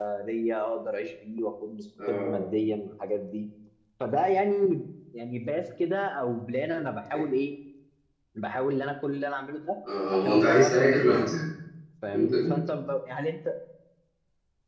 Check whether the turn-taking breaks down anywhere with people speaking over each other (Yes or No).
Yes